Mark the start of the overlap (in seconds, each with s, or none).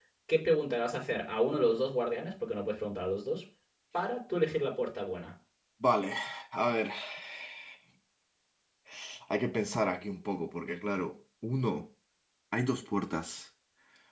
none